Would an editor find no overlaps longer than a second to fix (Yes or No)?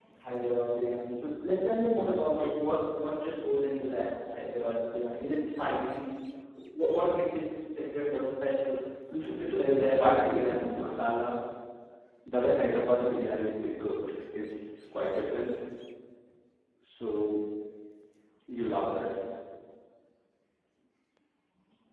No